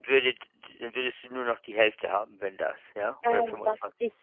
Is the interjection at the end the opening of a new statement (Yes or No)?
Yes